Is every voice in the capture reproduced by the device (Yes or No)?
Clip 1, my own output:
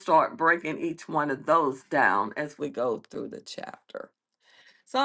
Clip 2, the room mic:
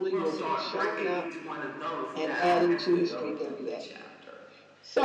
No